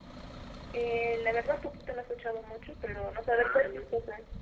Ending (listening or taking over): taking over